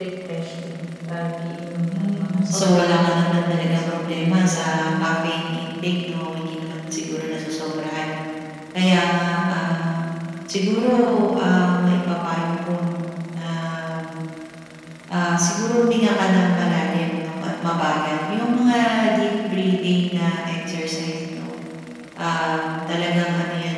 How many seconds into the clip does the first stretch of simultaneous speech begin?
1.9 s

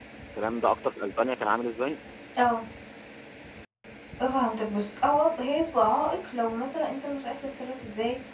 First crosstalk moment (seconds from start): none

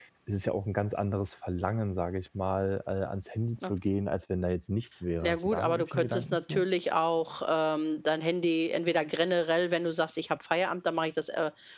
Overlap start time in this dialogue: 5.2 s

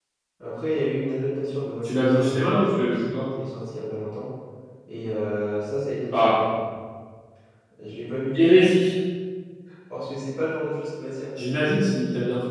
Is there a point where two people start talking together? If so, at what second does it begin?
1.8 s

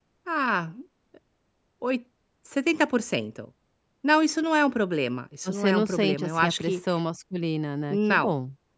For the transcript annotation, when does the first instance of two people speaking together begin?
5.4 s

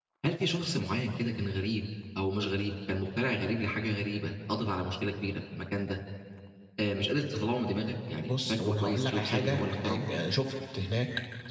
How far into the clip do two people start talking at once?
8.3 s

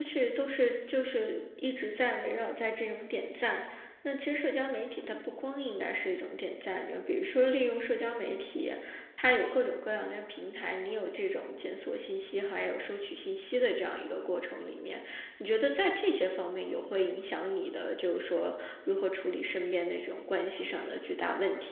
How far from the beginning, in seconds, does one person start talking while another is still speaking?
none

